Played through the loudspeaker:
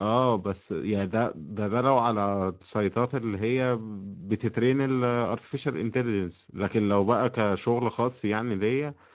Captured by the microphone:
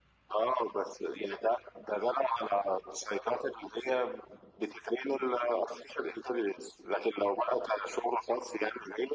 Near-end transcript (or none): none